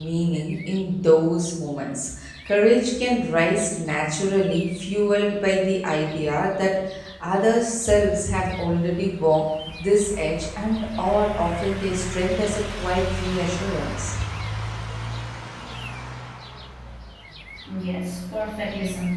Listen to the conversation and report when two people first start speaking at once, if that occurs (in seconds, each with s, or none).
none